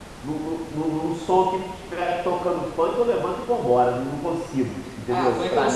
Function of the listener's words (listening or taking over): taking over